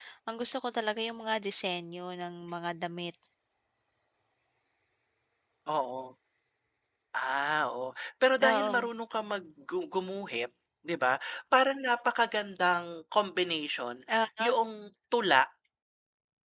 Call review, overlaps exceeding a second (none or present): none